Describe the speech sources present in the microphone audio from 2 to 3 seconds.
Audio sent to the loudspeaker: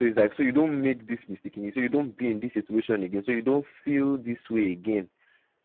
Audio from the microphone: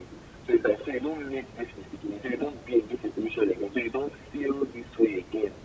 echo only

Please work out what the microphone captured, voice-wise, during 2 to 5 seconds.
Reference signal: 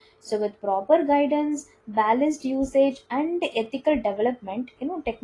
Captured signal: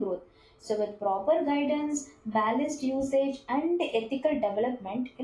echo only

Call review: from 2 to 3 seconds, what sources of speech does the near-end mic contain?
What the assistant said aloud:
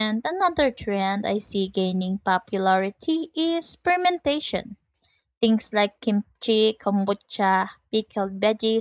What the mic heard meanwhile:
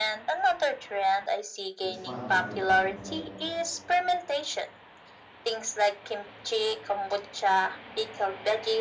both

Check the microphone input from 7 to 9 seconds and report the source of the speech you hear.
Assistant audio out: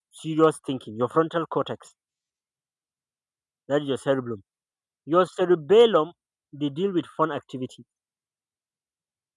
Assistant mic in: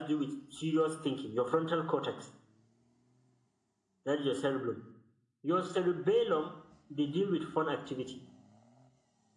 echo only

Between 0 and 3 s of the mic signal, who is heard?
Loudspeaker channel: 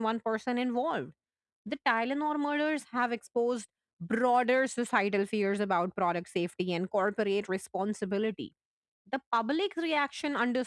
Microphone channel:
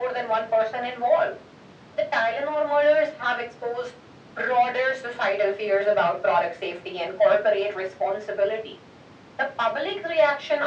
echo only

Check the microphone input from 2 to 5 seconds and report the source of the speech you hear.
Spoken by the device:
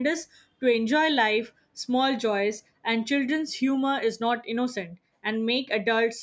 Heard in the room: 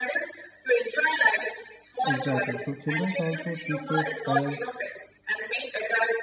both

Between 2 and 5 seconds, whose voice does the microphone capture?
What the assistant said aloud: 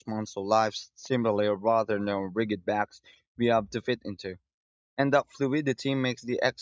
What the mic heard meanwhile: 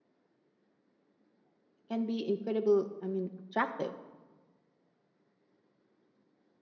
user only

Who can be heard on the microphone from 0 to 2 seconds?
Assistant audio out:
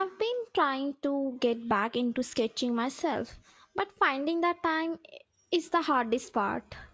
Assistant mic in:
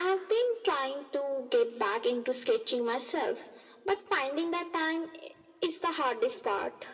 echo only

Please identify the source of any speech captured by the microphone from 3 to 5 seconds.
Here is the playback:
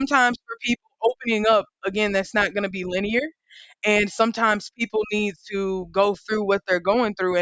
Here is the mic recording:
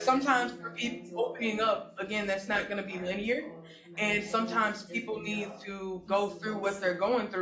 both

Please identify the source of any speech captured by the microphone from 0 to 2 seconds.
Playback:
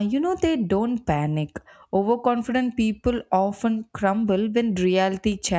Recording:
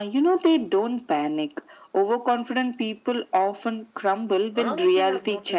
echo only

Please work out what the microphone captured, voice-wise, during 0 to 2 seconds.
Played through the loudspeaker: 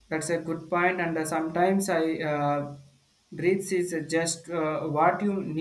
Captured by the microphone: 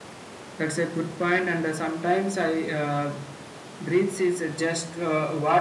echo only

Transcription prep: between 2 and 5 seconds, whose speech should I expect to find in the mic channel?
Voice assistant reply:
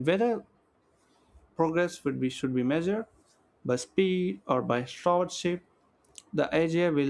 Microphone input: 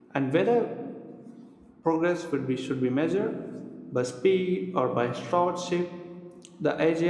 echo only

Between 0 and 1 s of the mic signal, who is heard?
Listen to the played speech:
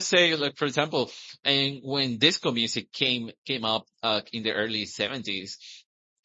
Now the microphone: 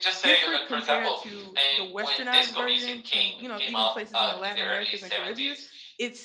both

